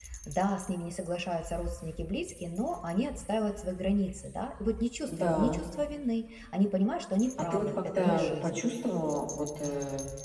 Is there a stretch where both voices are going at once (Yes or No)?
Yes